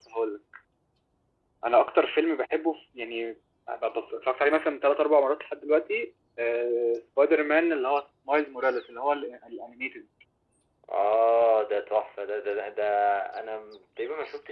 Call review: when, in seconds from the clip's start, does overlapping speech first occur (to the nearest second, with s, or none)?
none